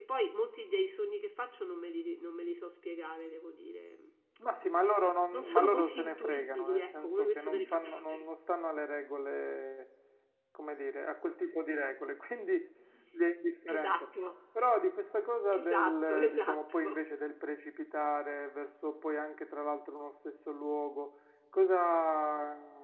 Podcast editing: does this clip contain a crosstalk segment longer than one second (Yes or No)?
Yes